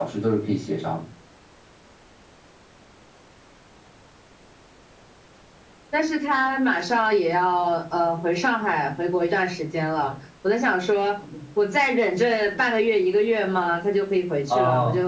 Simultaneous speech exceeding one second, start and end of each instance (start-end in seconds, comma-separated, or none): none